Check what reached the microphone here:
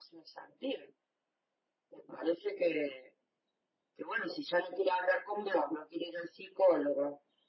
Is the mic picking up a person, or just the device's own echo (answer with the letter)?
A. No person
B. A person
A